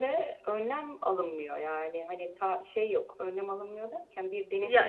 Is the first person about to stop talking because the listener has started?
No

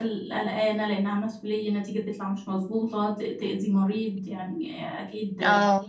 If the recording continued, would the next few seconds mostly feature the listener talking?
No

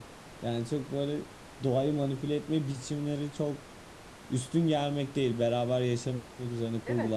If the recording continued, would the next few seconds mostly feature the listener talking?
Yes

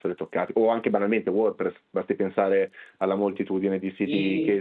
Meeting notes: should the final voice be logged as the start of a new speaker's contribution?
No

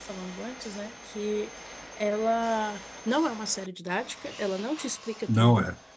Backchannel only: Yes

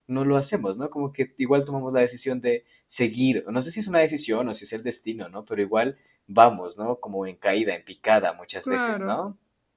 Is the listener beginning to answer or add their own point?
Yes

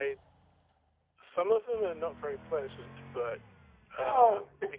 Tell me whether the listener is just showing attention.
Yes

